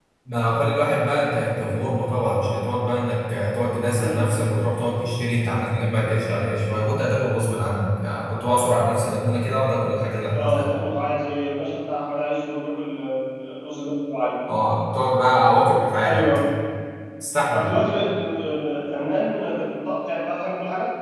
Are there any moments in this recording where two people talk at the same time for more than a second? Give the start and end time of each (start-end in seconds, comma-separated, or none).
none